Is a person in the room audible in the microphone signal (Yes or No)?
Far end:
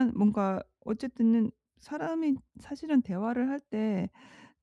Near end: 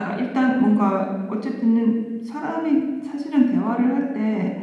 No